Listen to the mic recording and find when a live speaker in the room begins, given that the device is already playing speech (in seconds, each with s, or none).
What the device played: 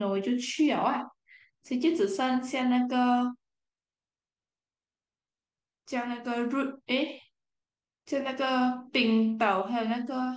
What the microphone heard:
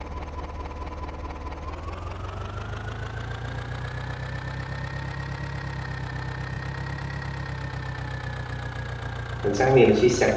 9.4 s